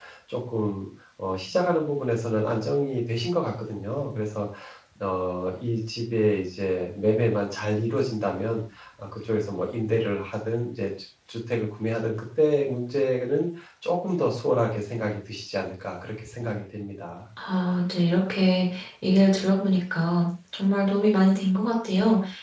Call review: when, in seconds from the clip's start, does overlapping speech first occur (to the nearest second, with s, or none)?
none